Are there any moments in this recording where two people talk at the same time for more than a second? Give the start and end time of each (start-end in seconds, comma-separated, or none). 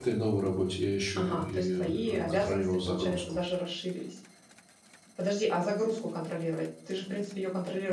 1.2-3.2